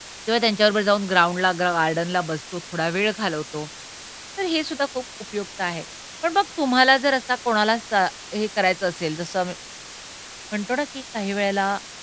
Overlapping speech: No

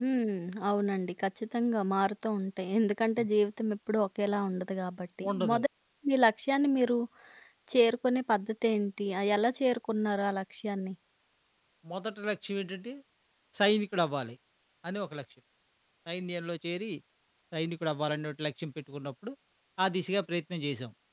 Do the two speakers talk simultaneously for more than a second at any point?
No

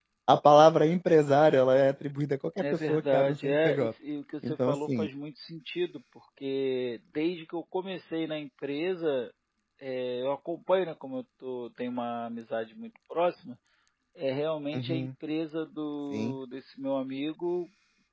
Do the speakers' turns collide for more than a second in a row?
Yes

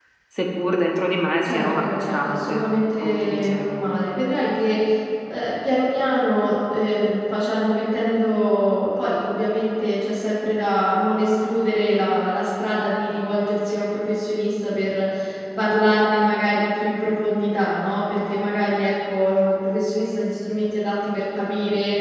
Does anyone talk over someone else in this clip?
Yes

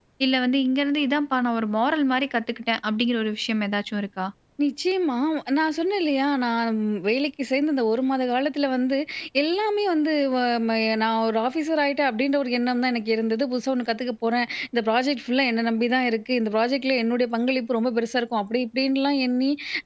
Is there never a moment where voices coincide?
Yes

